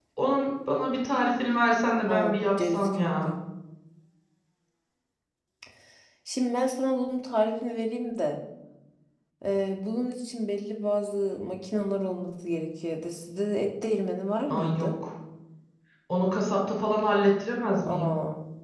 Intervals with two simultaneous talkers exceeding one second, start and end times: 2.1-3.3

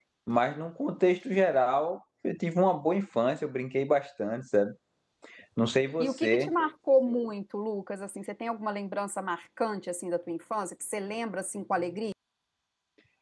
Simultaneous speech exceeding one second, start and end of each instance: none

